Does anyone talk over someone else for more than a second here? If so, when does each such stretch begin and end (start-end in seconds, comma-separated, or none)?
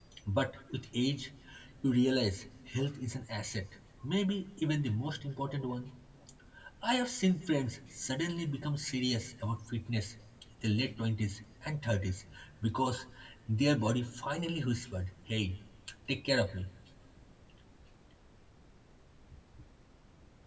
none